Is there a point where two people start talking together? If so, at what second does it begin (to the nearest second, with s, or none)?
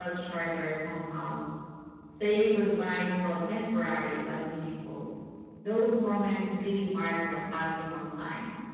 none